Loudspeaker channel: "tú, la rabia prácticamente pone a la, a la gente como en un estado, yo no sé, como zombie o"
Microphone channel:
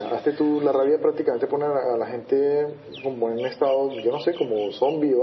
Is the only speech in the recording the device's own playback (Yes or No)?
Yes